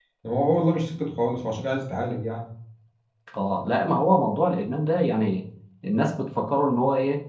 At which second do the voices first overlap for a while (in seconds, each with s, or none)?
none